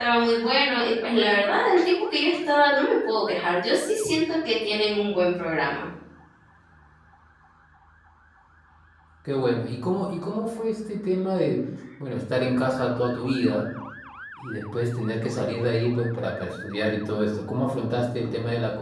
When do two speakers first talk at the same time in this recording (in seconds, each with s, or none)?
none